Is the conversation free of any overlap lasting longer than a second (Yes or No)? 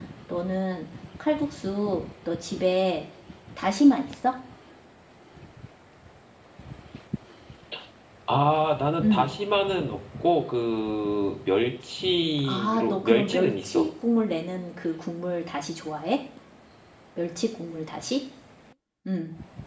No